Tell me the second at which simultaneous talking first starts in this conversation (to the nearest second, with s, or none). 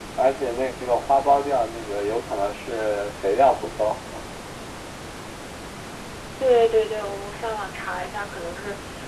none